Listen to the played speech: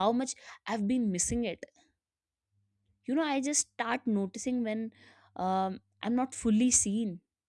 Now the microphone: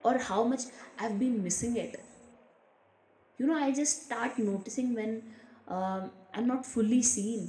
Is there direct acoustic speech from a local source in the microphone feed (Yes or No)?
No